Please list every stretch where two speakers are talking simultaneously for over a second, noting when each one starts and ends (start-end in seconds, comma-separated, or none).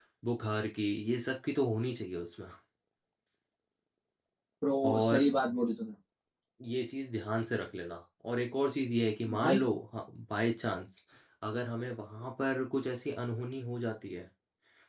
none